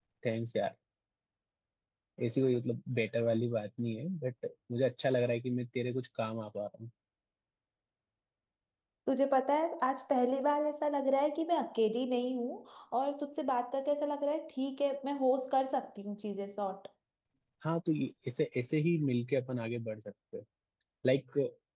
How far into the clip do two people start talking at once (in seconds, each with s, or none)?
none